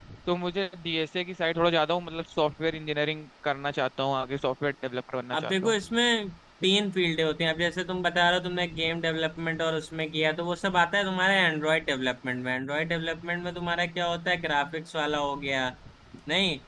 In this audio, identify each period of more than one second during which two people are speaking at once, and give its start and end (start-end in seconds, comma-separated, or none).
none